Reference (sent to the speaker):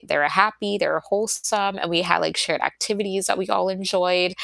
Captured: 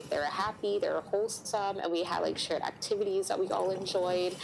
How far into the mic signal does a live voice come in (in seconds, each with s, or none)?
none